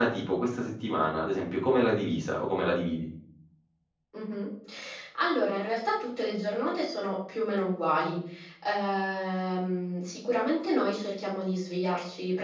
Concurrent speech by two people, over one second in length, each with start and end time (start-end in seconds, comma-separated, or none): none